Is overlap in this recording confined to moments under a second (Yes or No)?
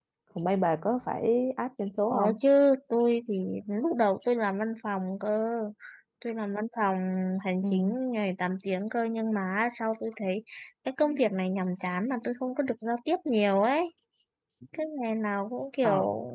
Yes